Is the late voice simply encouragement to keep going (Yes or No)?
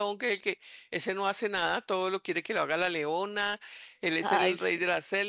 Yes